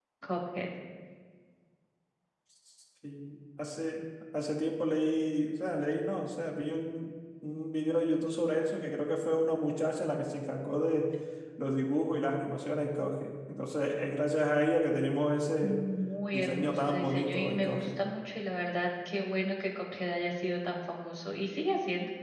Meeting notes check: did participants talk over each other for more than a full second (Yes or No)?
Yes